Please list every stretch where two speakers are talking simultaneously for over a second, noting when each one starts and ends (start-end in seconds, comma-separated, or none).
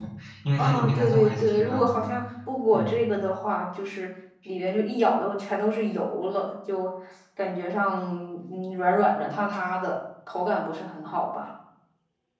0.6-2.1